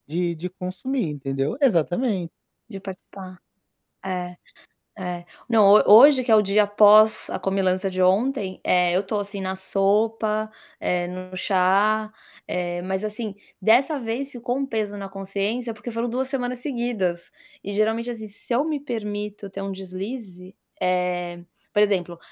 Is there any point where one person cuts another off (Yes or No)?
No